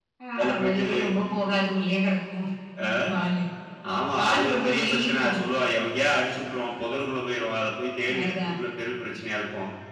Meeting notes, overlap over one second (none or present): present